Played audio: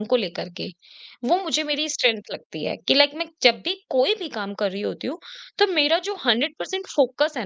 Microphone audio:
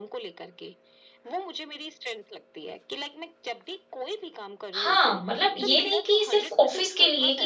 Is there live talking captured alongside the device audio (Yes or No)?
Yes